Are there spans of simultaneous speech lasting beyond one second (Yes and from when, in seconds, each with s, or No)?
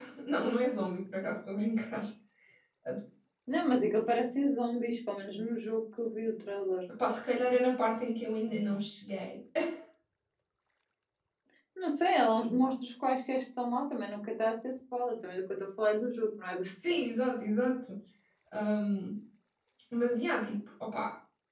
No